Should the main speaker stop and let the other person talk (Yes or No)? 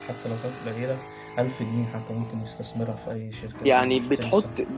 Yes